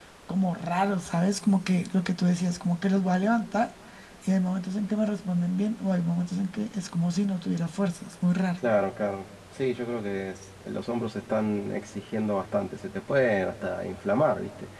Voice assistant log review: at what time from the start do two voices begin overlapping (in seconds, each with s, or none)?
none